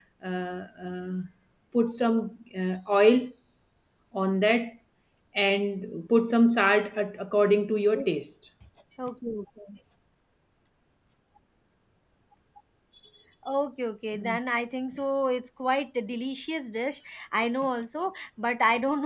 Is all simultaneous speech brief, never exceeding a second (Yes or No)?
Yes